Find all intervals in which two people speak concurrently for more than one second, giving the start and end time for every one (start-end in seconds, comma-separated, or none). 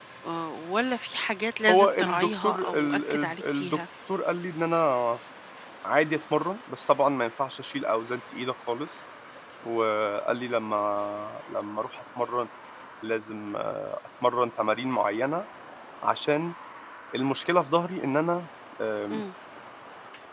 1.7-3.8